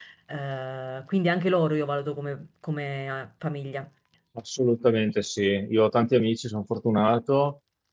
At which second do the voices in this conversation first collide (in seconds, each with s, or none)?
none